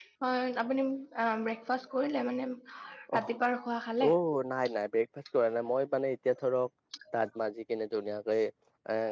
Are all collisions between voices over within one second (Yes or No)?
Yes